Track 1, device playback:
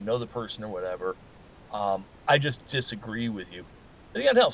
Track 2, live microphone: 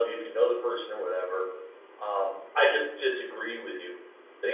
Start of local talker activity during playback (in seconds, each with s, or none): none